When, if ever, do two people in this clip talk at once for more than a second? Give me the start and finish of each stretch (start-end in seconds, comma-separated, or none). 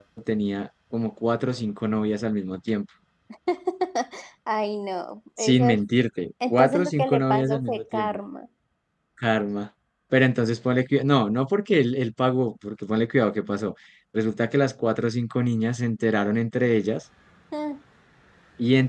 6.5-8.2